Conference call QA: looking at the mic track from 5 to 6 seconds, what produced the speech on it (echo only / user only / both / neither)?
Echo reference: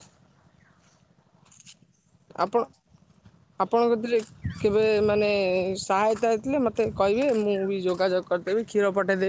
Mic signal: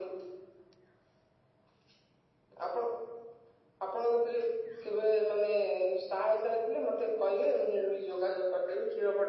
echo only